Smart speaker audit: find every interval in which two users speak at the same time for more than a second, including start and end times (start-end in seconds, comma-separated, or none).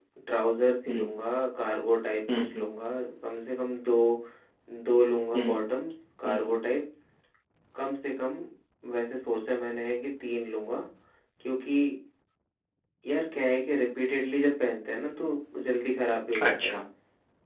none